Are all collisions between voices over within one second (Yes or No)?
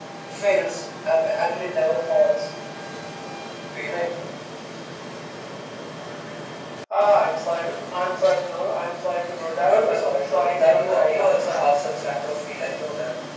No